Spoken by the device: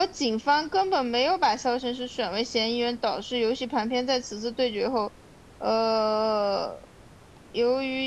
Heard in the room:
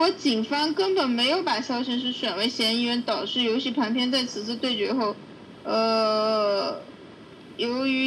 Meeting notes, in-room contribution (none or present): none